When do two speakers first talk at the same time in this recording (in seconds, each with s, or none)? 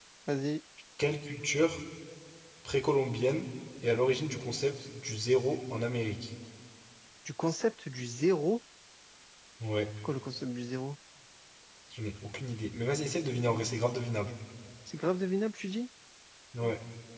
none